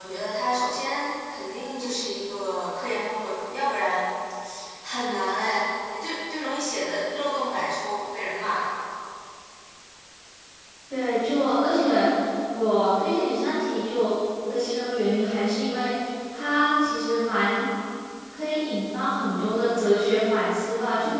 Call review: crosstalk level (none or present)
none